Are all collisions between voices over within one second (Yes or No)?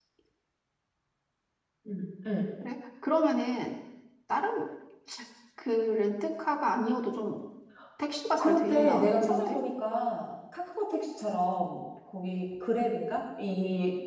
No